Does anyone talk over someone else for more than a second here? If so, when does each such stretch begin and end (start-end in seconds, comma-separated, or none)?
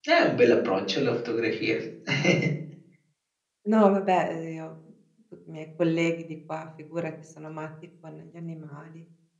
none